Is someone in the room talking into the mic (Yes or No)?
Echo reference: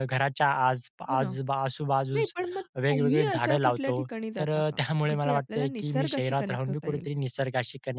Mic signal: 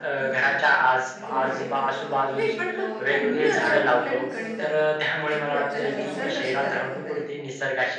Yes